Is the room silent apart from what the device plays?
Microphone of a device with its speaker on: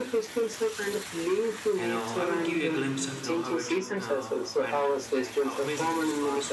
No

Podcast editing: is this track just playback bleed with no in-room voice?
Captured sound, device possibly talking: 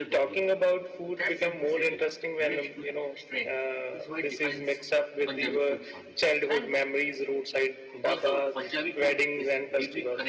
Yes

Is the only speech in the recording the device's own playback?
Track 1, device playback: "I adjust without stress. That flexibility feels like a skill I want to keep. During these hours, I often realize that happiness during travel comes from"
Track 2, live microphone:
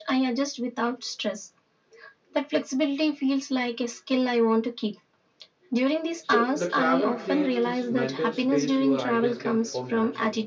No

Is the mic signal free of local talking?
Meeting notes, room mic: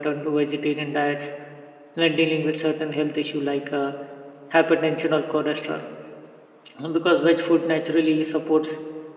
Yes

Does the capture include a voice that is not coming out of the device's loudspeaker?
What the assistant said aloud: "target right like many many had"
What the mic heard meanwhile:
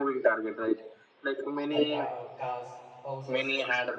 Yes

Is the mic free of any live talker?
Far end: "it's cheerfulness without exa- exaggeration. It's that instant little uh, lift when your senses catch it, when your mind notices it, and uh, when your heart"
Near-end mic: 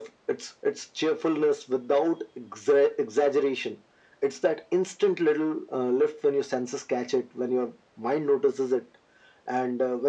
Yes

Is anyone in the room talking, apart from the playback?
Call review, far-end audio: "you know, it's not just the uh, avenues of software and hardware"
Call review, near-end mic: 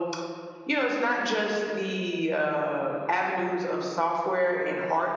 No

